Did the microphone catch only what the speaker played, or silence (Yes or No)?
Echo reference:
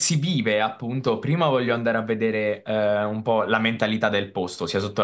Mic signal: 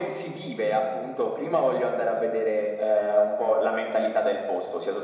Yes